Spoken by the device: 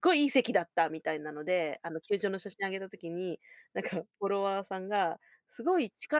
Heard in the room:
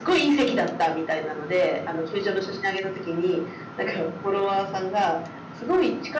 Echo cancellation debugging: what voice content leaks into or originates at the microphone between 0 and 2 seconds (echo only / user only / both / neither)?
echo only